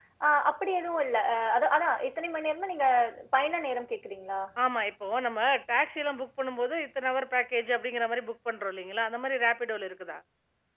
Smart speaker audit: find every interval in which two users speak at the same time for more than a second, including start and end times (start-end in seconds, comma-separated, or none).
none